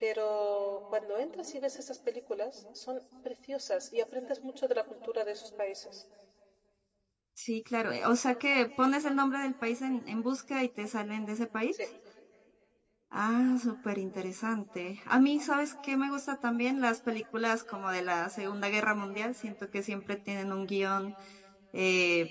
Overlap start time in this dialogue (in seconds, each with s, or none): none